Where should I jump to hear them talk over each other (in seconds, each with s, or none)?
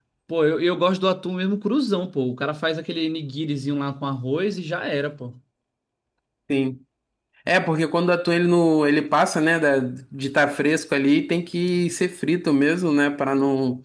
none